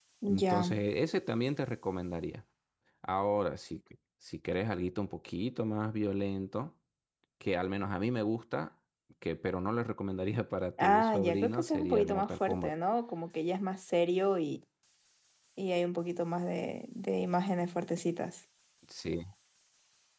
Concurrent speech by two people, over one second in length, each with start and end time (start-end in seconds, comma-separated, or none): 10.8-12.8